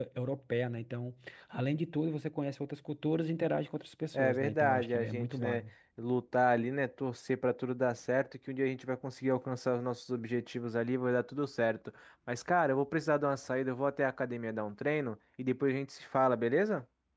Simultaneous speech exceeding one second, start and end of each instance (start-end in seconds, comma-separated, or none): 4.1-5.6